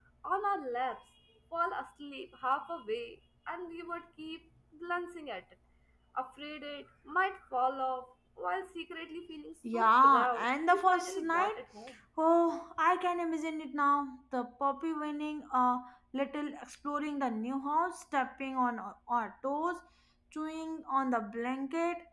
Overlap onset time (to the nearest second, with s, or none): 10 s